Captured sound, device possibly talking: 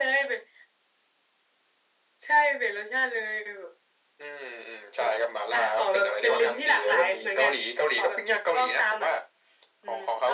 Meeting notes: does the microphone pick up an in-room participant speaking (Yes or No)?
No